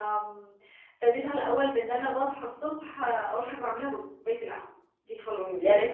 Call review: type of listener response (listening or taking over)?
taking over